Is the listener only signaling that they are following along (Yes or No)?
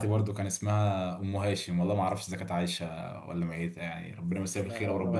No